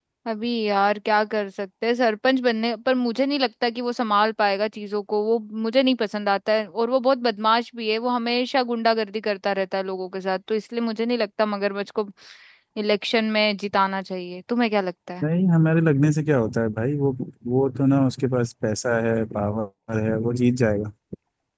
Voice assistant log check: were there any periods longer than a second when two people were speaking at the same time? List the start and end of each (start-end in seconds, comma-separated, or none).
none